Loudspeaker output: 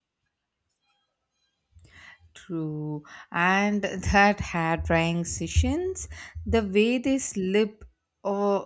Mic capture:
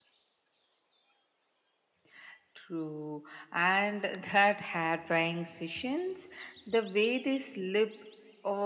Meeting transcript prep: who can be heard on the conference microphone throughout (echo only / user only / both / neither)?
echo only